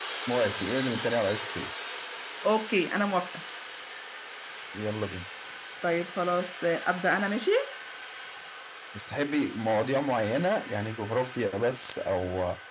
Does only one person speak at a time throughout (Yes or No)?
Yes